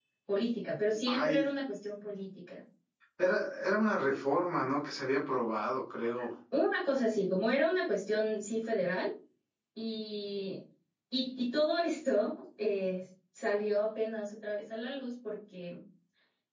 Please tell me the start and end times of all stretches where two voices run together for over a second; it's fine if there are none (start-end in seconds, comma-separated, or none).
none